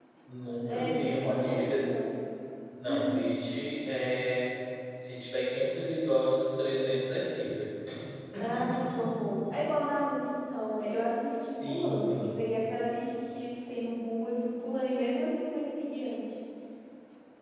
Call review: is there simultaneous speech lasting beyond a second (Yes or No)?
Yes